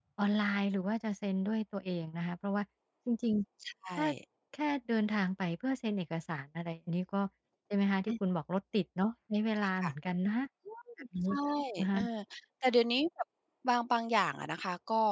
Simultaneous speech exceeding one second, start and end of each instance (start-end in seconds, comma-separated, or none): none